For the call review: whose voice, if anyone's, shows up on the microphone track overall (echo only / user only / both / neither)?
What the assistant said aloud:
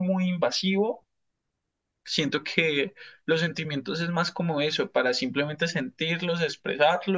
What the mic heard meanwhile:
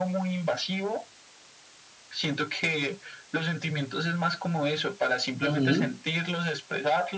both